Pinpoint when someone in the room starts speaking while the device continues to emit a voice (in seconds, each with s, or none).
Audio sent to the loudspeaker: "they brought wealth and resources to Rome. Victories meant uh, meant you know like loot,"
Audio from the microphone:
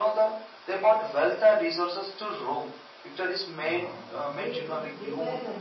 3.6 s